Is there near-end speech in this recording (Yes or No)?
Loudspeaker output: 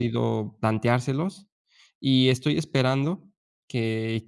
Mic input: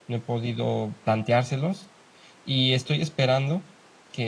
No